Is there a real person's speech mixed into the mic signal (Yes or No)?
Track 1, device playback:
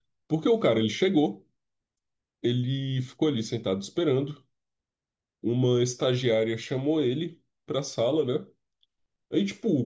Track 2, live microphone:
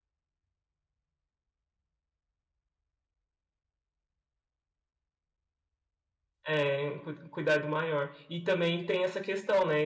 Yes